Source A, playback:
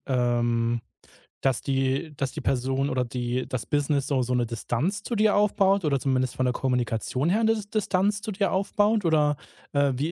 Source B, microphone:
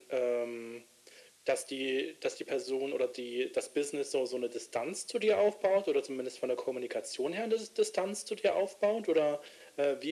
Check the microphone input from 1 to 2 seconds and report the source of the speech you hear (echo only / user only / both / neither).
echo only